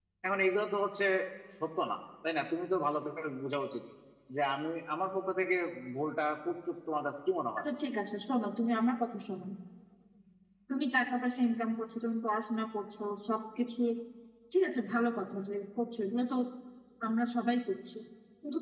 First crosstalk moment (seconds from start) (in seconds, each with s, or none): none